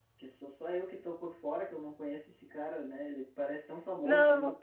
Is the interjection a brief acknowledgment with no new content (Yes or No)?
Yes